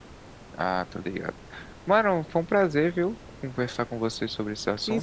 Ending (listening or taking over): taking over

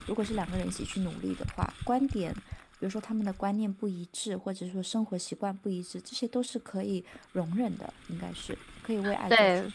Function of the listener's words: taking over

